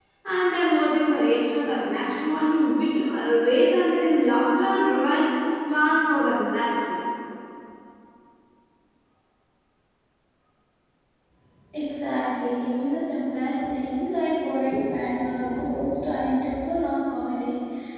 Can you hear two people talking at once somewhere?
No

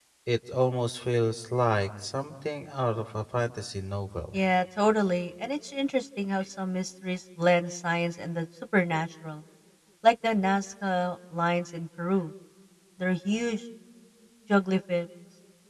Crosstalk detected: No

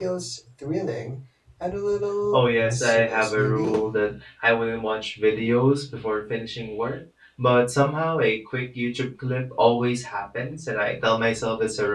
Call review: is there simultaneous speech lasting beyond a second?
Yes, from 2.3 s

